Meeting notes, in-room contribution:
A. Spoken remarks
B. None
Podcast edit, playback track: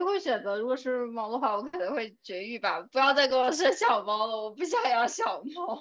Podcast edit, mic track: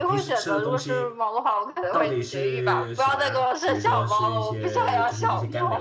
A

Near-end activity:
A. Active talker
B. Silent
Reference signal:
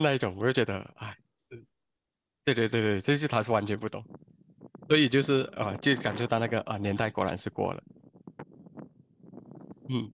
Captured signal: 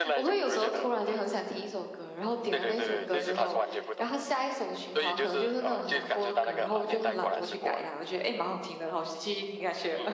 A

